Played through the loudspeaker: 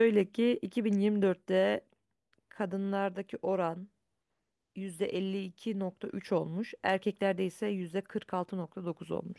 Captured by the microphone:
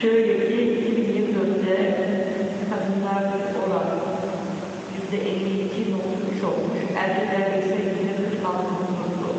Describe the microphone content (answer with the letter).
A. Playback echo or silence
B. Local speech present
A